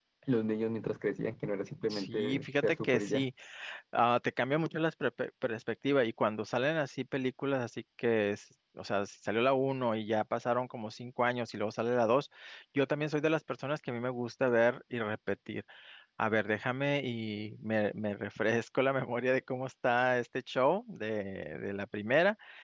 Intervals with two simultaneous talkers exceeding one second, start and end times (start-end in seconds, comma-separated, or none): 1.9-3.2